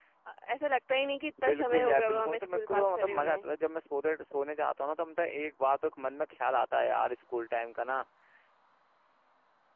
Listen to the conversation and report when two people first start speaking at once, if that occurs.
1.4 s

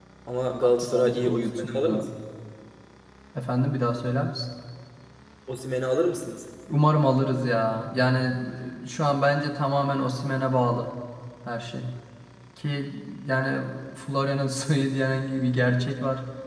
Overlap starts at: 0.6 s

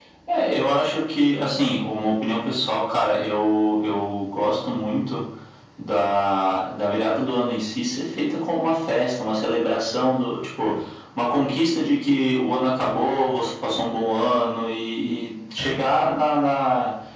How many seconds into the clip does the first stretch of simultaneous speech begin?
none

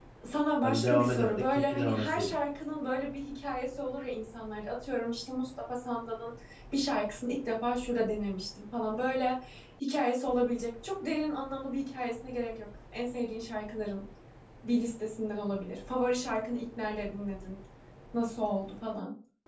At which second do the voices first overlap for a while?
0.6 s

